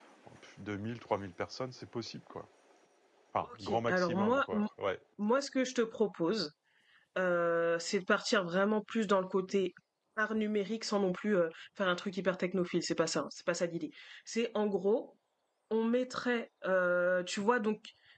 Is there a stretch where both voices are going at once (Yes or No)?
Yes